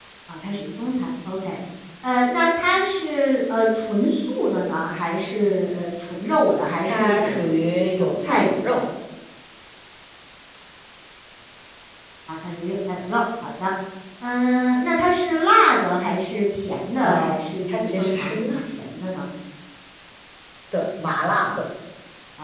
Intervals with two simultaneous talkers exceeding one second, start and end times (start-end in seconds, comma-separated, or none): 6.8-8.8, 17.0-18.6